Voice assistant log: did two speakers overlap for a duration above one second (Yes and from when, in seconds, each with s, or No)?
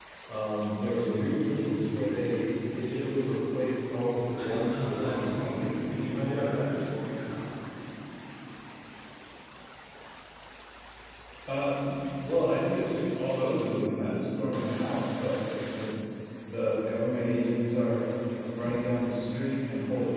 Yes, from 4.4 s